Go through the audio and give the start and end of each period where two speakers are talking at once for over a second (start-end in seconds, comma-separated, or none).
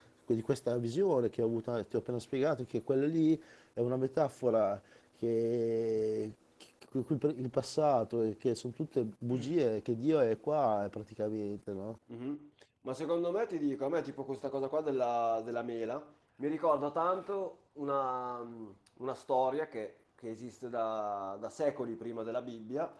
none